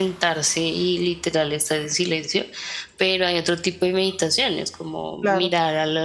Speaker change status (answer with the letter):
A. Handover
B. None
B